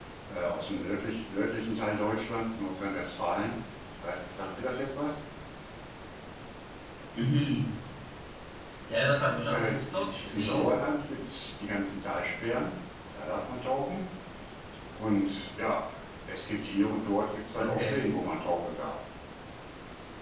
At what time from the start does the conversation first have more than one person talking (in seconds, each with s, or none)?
9.5 s